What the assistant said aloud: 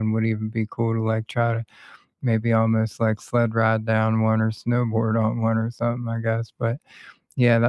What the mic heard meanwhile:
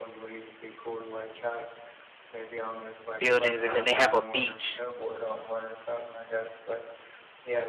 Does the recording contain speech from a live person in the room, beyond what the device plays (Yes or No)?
Yes